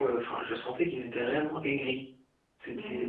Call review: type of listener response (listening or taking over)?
taking over